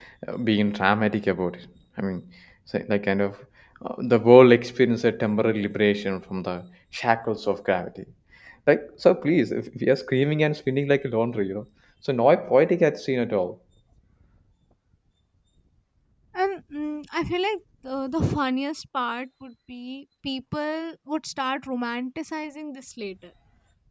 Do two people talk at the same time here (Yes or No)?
No